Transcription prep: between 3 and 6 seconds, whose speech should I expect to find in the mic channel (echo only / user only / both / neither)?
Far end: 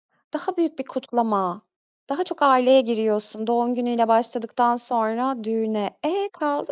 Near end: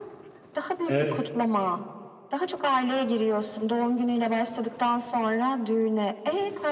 echo only